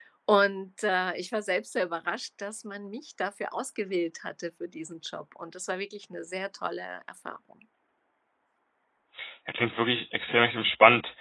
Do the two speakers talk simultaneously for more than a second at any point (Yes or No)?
No